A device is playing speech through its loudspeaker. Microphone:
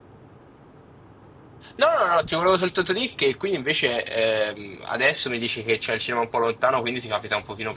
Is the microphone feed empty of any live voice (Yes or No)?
No